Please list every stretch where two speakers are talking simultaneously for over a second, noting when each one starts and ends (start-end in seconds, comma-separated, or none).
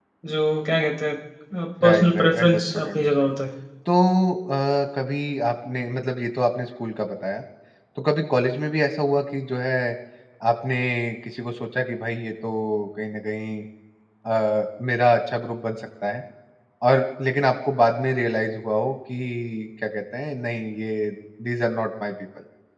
1.8-3.1